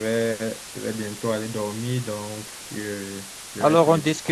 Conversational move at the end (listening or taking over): taking over